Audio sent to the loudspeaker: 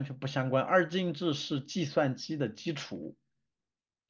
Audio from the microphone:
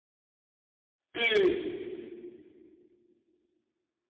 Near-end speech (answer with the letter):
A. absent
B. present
B